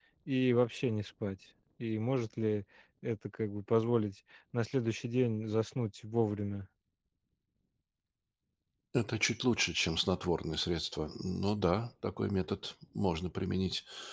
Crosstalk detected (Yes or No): No